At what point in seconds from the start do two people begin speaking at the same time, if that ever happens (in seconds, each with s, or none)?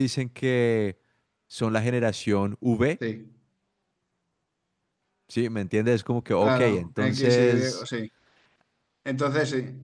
6.4 s